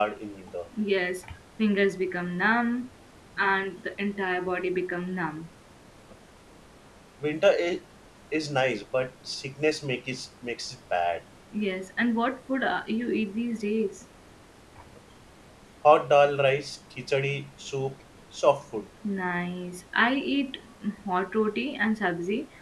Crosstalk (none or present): none